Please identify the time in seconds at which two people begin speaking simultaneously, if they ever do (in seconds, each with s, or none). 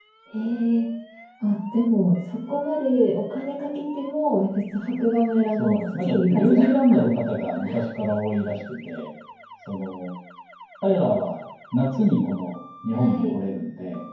5.5 s